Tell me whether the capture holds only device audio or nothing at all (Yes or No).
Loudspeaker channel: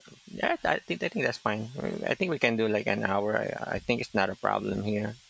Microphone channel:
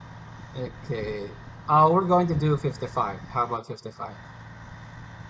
No